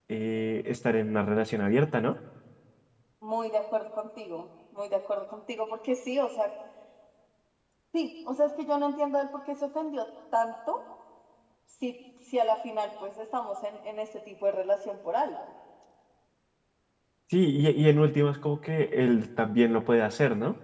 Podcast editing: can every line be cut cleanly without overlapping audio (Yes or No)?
Yes